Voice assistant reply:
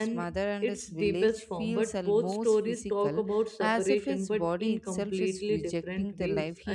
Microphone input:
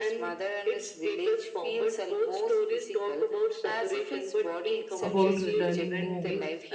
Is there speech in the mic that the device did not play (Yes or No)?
Yes